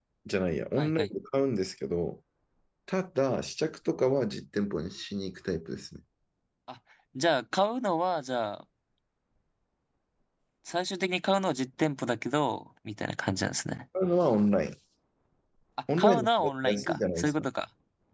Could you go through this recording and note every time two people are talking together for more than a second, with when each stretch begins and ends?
16.0-17.3

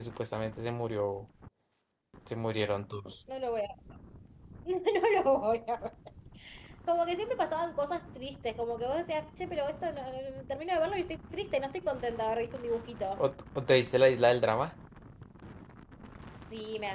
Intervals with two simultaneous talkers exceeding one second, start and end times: none

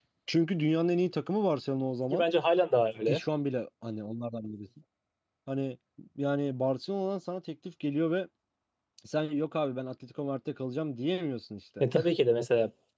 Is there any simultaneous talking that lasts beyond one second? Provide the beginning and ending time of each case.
none

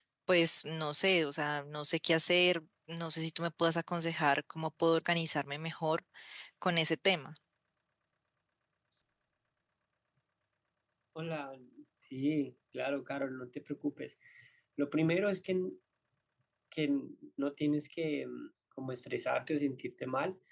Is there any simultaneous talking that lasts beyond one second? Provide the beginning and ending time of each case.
none

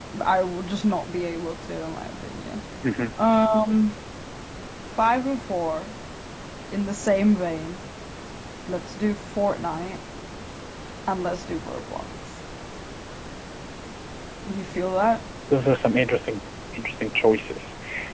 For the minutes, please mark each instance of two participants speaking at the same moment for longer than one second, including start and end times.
none

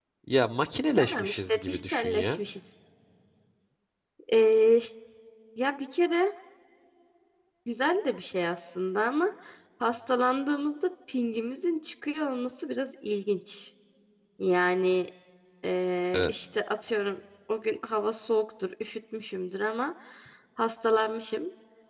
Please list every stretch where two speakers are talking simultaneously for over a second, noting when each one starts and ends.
1.0-2.4

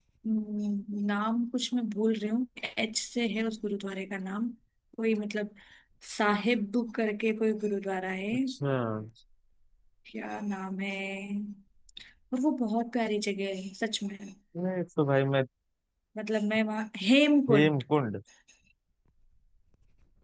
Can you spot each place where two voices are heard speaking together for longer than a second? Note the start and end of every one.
none

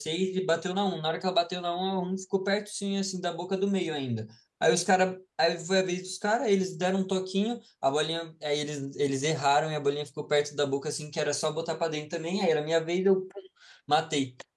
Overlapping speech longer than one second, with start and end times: none

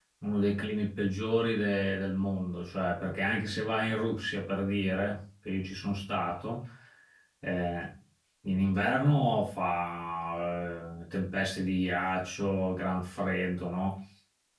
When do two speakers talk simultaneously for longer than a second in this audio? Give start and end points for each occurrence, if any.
none

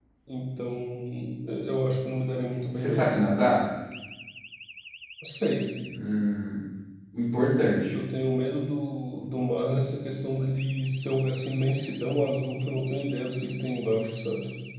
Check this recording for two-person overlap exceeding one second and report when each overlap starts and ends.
none

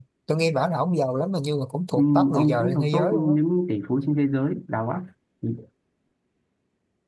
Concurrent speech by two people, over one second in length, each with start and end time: 1.9-3.3

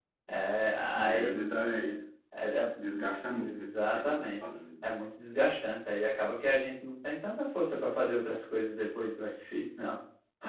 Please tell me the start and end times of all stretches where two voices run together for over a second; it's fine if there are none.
3.3-4.9

